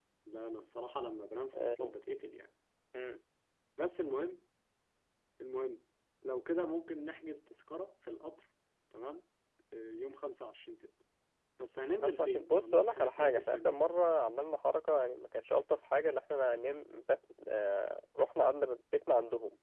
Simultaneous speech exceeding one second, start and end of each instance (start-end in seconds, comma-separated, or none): 12.0-13.7